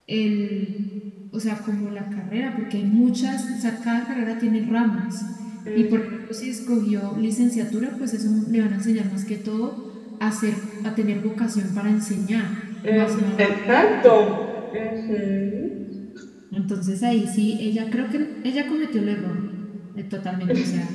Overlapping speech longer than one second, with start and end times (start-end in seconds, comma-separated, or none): 12.9-14.1